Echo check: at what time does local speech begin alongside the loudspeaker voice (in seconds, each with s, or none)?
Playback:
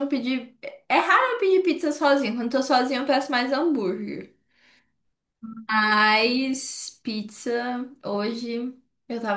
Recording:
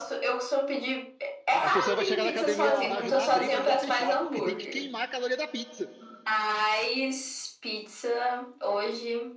1.6 s